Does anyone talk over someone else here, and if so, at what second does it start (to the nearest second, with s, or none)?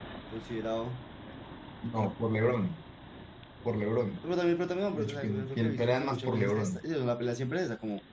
5 s